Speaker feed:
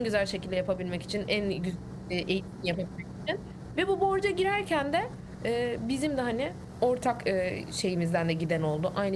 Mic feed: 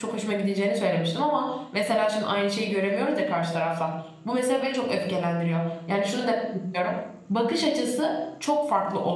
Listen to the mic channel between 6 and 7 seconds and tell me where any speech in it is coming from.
user only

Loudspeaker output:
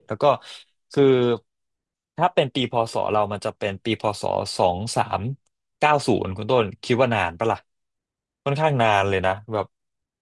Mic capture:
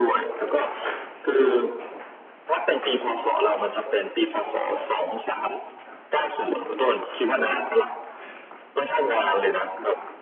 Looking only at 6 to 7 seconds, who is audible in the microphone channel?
echo only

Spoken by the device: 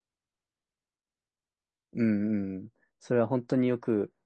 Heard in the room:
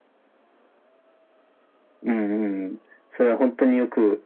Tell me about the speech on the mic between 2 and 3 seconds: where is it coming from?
echo only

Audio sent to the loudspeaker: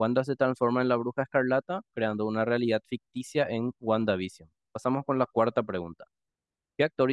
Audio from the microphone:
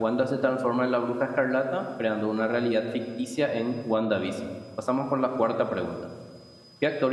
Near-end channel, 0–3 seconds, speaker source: echo only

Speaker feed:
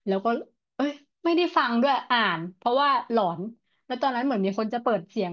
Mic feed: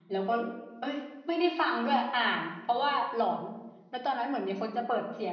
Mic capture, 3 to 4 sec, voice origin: echo only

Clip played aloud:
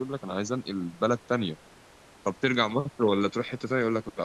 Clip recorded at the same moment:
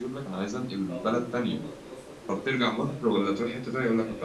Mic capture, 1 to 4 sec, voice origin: both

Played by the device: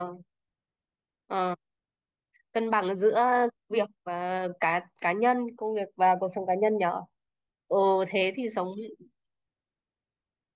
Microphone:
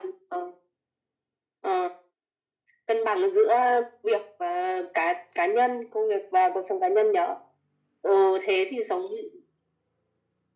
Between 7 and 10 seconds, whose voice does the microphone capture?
echo only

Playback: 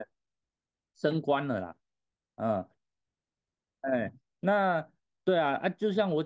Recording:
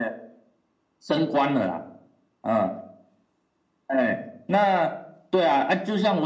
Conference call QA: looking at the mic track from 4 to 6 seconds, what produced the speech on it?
echo only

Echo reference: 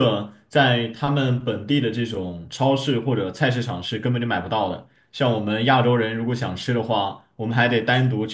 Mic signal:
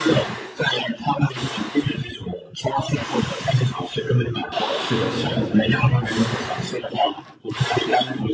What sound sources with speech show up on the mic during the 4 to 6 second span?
both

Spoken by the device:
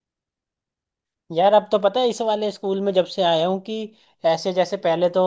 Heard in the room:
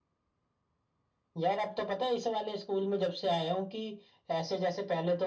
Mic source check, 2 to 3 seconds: echo only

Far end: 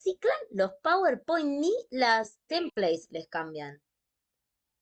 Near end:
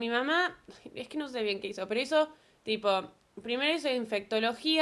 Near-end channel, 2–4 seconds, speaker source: user only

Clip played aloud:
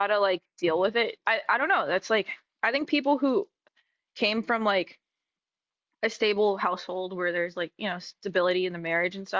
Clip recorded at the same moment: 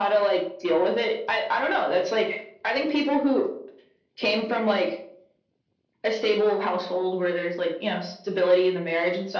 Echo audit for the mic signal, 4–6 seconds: echo only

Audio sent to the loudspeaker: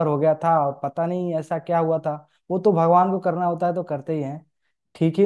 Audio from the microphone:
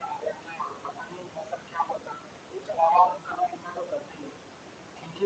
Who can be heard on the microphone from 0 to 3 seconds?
echo only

